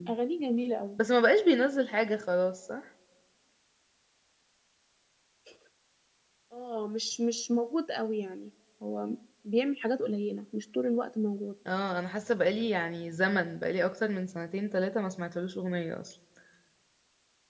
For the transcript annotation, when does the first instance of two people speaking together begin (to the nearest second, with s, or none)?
none